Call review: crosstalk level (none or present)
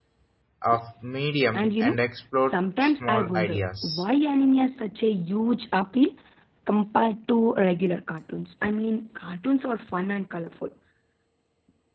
present